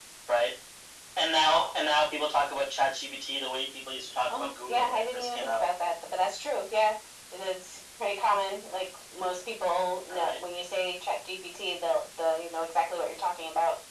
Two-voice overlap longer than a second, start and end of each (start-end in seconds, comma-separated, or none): 4.3-5.7